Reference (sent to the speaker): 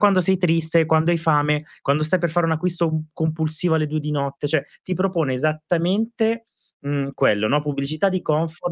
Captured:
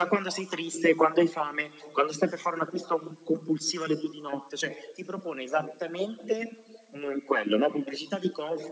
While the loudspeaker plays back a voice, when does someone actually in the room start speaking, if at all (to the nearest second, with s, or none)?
none